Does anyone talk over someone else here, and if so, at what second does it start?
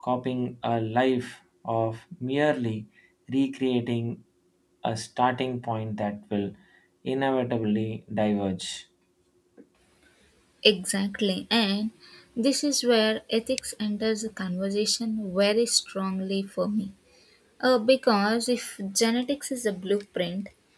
none

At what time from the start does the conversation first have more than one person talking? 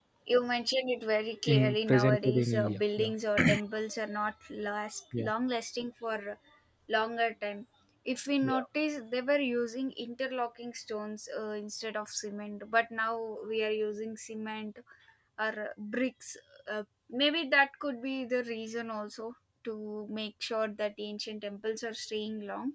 1 s

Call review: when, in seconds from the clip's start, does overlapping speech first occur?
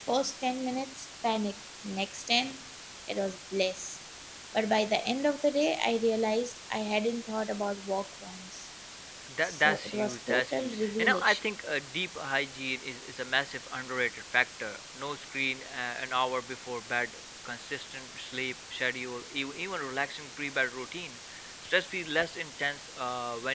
9 s

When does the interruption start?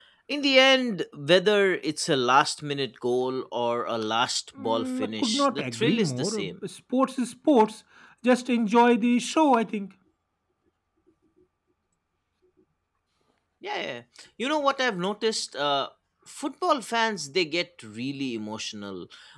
5 s

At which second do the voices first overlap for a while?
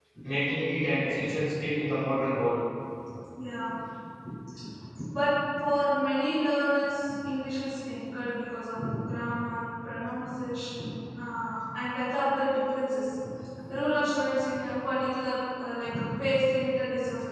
none

